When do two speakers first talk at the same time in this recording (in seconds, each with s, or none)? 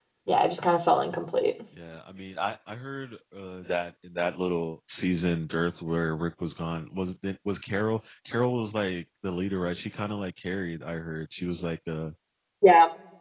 none